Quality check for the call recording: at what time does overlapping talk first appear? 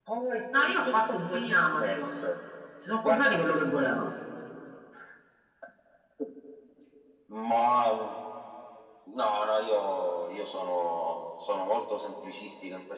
0.7 s

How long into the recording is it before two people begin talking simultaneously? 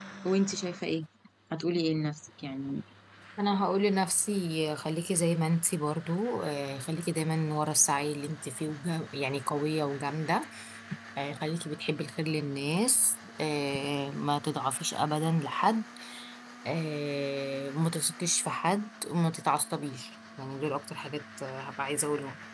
none

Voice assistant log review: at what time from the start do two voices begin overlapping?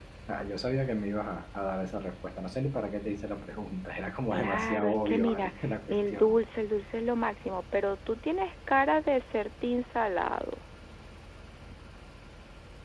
4.3 s

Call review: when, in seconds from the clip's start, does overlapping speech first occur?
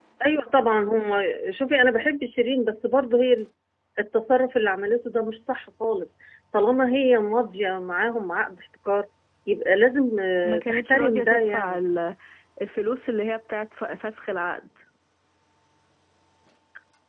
10.4 s

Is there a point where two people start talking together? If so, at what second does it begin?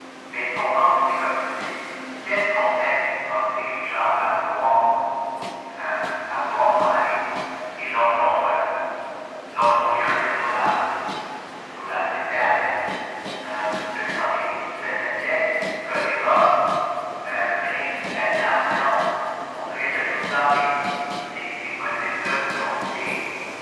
none

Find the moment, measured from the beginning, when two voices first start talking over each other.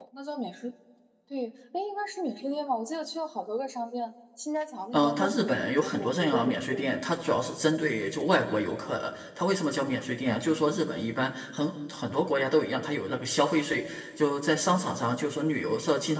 4.9 s

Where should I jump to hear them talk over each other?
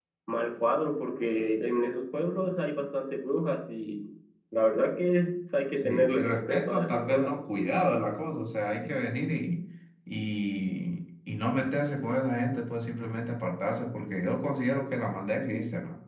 5.8 s

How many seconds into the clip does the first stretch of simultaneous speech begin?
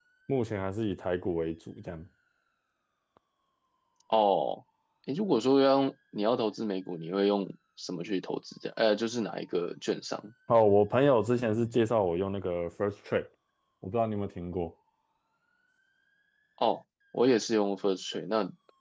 none

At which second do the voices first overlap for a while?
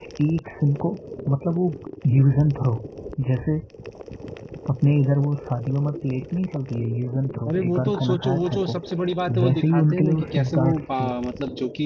7.5 s

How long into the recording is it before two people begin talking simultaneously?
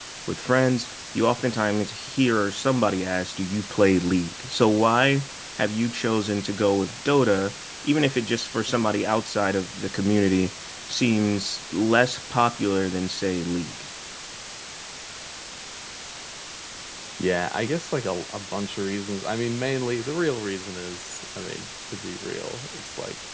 none

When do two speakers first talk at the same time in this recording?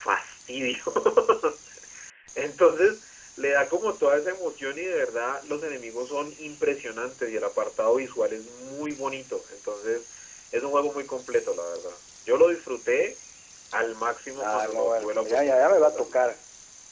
14.4 s

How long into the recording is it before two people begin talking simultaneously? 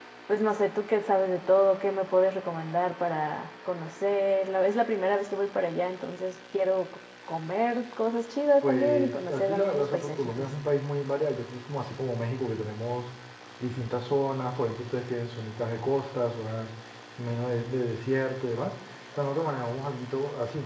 8.6 s

